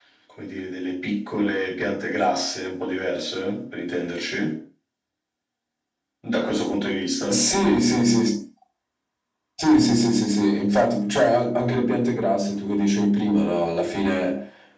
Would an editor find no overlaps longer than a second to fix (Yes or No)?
Yes